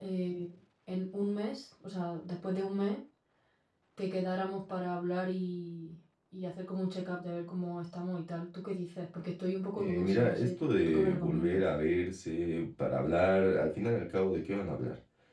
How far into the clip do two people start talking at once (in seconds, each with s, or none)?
9.8 s